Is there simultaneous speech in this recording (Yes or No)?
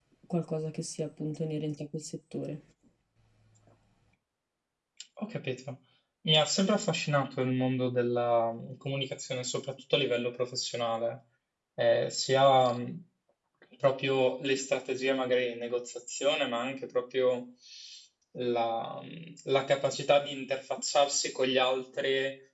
No